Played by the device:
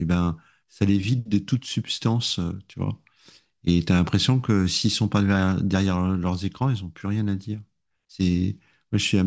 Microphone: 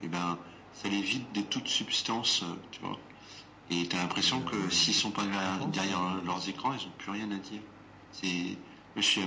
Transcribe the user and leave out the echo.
Et euh, je sais pas ce que t'en penses, mais

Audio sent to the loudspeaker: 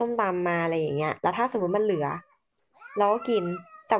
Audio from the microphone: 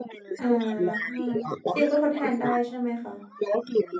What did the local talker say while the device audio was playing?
อ่าซิลก็ทดแทนได้ใช่ไหมคะ

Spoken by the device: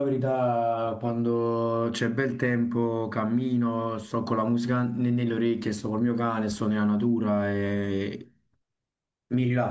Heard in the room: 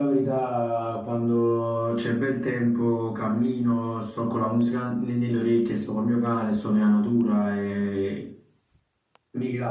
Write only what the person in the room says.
none

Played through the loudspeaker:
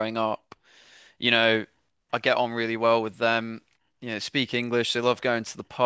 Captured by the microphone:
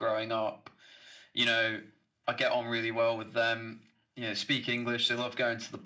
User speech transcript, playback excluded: none

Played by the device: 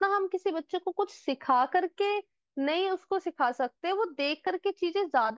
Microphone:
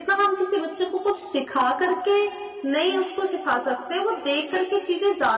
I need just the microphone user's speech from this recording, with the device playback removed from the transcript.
none

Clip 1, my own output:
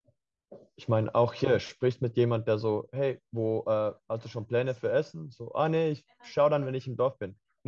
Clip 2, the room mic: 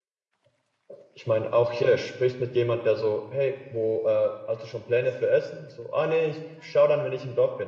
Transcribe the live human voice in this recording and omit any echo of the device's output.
none

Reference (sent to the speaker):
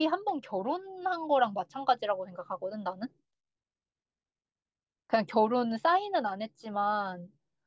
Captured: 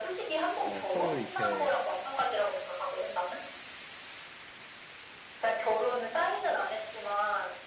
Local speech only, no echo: 어, 서로 이렇게

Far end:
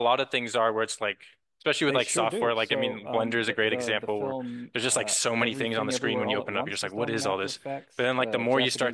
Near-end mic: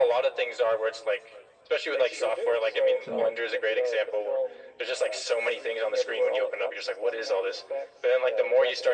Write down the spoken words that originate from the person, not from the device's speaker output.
So

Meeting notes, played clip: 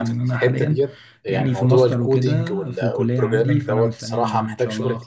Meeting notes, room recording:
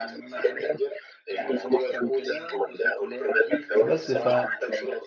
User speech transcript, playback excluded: فبس ف...

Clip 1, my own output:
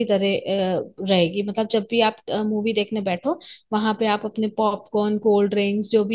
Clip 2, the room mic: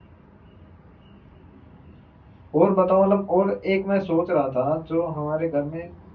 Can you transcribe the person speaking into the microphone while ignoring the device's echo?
और बताओ मतलब और एक मैं सोच रहा था जो हमारे घर में

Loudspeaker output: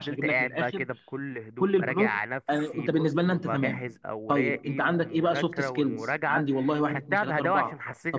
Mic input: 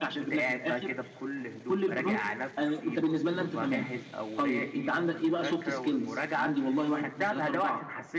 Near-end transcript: none

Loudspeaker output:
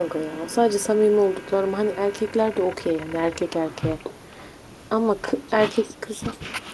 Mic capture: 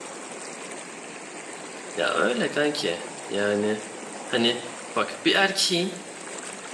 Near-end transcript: Ya öyle kanki. Yani hani bak bir erkeğin

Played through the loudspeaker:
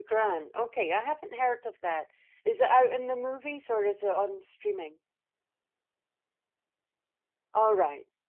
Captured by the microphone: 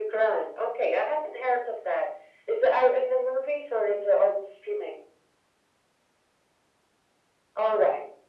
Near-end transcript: none

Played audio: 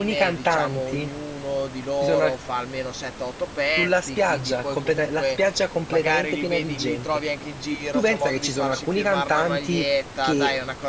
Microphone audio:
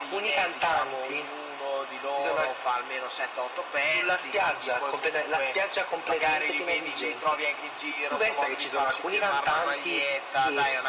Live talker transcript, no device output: none

